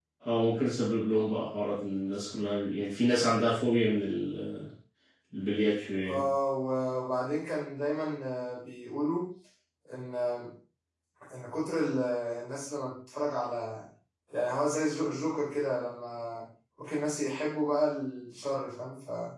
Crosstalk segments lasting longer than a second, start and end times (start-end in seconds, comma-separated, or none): none